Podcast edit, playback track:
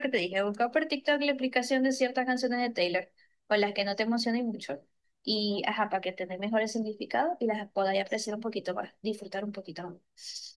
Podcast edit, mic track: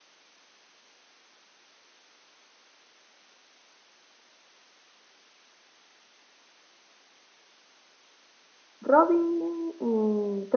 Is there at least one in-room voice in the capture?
Yes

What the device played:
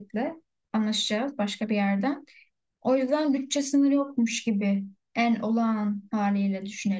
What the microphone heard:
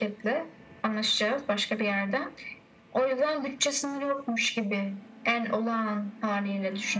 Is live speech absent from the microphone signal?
Yes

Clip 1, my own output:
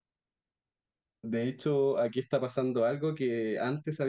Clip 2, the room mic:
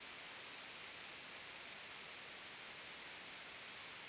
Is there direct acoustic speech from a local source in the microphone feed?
No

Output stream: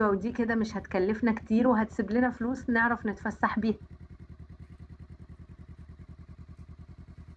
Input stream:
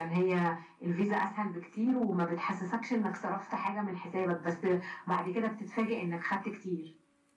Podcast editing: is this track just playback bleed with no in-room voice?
No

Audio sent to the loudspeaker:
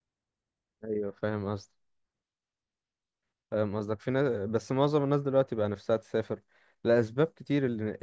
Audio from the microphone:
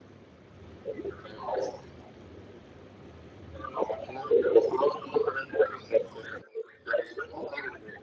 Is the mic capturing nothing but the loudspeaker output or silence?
Yes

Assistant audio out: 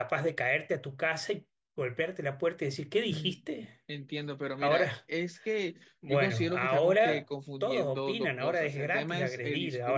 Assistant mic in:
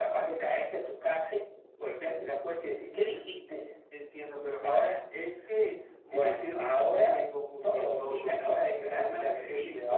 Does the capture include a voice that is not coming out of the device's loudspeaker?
No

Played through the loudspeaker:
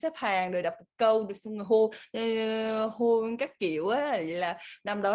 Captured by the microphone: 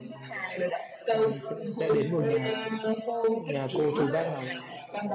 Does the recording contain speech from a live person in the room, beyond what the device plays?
Yes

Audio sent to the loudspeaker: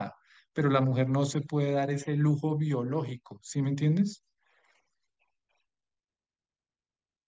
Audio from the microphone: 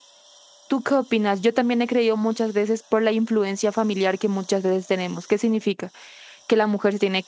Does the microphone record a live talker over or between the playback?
Yes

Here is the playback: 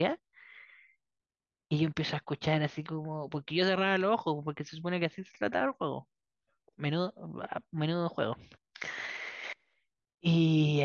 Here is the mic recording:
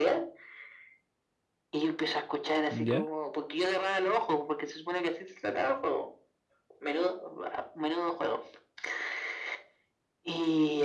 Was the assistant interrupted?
Yes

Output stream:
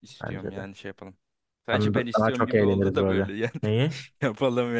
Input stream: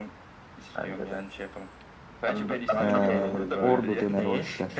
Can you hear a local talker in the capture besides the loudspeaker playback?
Yes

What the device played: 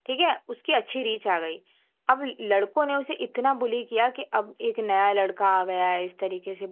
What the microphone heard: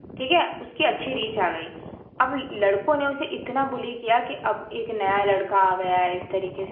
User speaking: No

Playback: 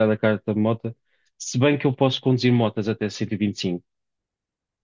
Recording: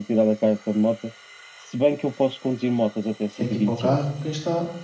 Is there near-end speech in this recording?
Yes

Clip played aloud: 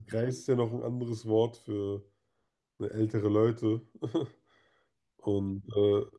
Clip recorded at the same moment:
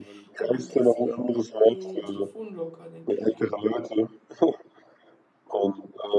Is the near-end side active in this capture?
Yes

